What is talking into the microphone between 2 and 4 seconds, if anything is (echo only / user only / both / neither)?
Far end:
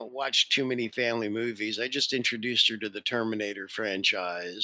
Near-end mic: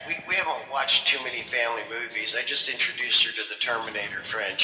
echo only